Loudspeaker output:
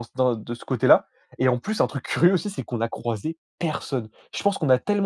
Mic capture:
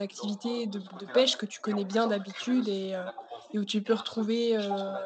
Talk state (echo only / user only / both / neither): both